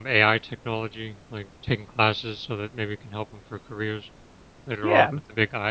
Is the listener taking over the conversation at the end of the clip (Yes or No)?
Yes